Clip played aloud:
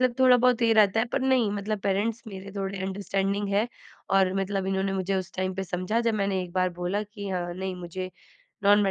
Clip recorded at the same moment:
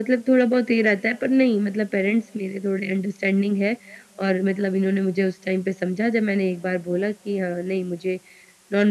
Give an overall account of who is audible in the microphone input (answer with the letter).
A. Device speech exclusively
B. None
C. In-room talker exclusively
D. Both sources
A